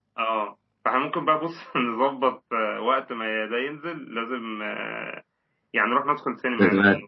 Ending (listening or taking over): listening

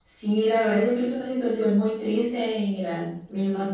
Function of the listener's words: listening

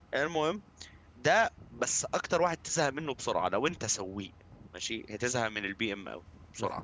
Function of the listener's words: taking over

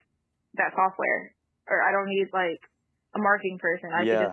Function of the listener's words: listening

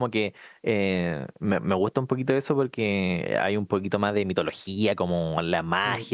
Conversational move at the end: listening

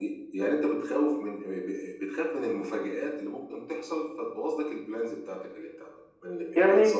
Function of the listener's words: taking over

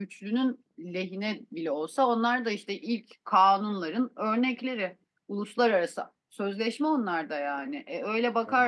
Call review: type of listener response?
listening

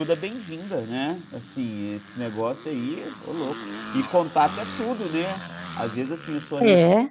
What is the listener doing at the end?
listening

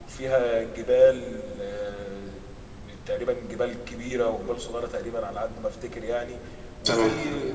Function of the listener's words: listening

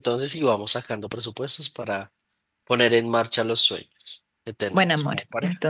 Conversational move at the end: taking over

